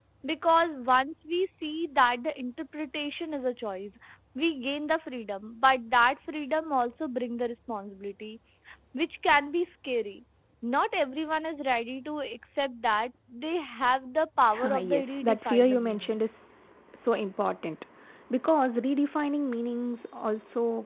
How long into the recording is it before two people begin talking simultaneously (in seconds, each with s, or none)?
14.7 s